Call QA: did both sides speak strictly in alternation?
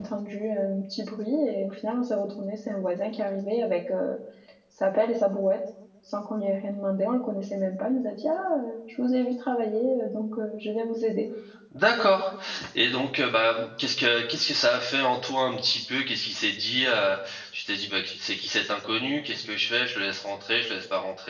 Yes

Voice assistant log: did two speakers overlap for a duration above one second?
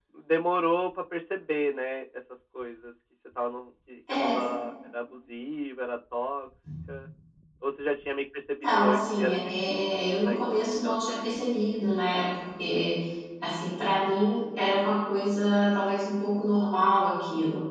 Yes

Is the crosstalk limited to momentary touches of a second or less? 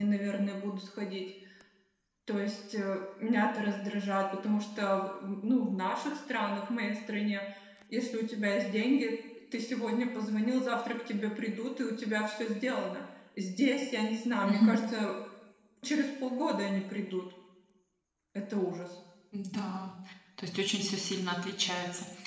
Yes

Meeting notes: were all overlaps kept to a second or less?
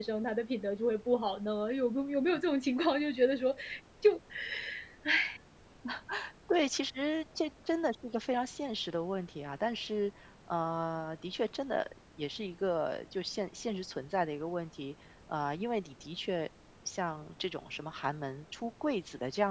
Yes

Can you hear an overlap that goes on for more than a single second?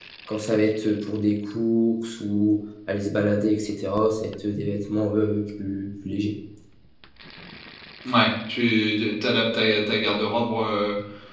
No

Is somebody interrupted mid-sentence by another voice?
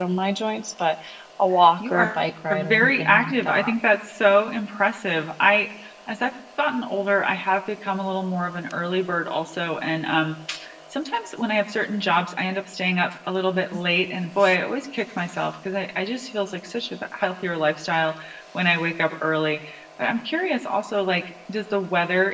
Yes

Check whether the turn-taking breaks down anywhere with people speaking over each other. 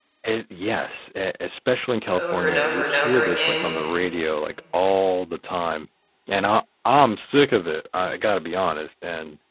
Yes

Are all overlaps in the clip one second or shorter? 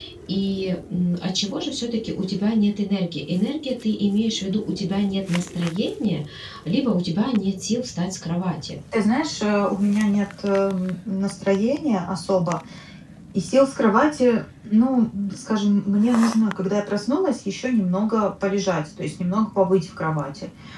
Yes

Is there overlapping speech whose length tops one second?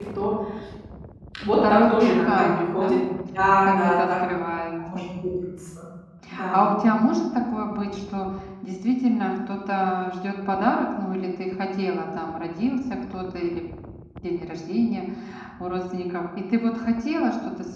Yes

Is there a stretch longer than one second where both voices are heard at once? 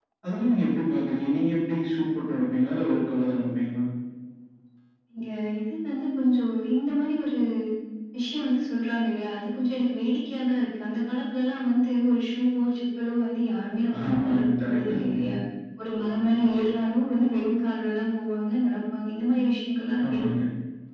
Yes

